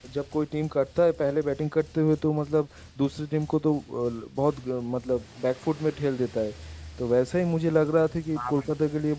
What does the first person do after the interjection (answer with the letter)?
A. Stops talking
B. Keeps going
B